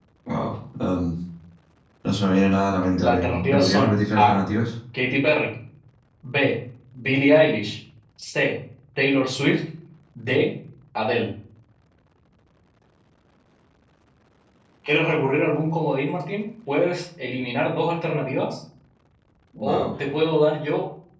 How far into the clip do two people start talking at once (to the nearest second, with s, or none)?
3 s